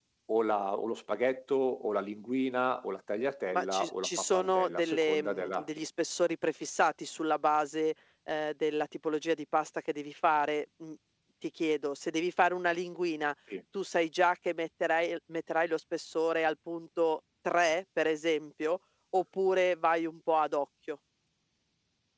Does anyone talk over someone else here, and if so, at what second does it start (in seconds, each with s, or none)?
3.5 s